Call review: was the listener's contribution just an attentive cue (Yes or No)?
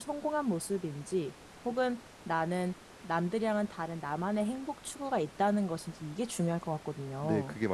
No